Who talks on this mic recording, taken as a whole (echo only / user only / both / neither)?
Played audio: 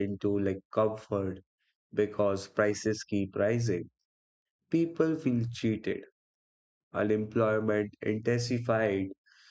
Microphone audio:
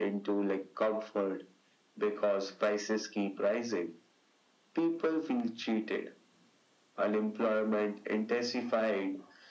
echo only